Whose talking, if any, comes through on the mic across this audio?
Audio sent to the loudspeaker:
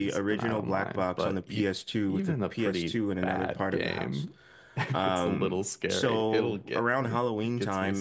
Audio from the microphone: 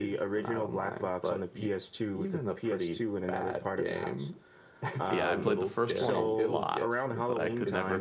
both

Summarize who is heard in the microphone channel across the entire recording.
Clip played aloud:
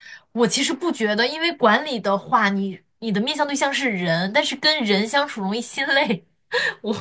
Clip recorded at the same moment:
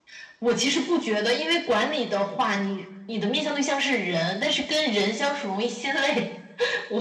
echo only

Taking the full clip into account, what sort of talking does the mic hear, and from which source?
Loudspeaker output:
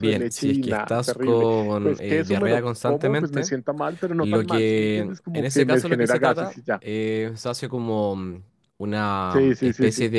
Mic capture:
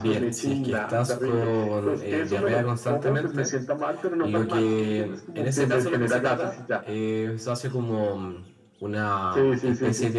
echo only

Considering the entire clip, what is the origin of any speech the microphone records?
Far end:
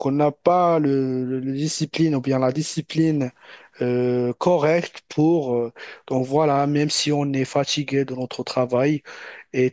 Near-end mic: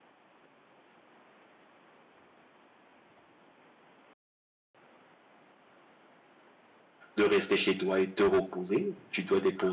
user only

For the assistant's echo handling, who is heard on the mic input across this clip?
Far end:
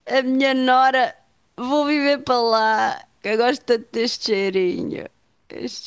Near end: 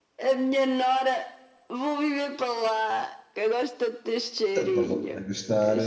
both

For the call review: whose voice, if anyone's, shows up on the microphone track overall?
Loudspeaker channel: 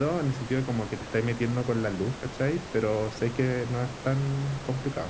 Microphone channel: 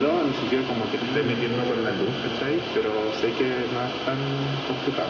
both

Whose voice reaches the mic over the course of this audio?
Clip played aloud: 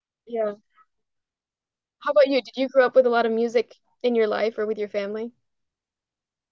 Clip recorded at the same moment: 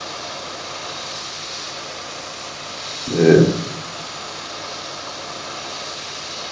user only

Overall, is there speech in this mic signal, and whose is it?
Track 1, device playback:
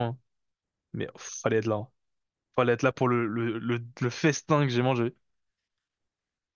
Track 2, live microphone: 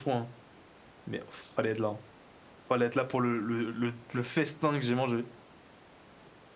echo only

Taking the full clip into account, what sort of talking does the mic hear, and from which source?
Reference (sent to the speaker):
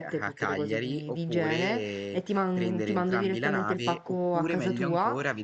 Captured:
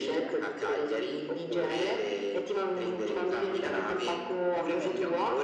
echo only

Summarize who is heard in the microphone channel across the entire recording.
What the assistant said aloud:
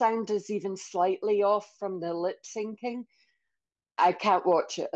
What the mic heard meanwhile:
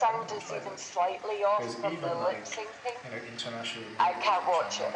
both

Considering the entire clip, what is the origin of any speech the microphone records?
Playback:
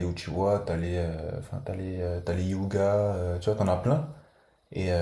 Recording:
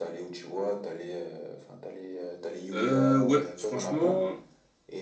both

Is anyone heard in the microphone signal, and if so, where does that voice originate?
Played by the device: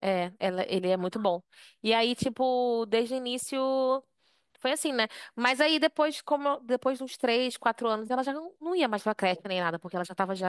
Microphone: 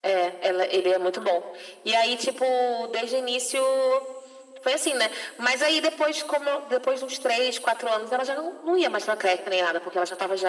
echo only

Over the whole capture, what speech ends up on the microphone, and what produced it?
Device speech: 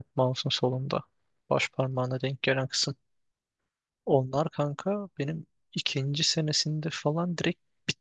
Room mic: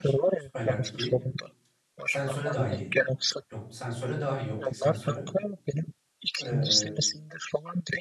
both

